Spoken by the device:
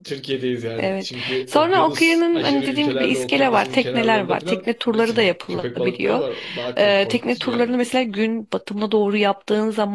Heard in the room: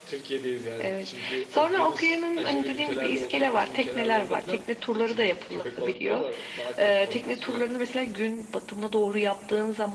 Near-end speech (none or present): none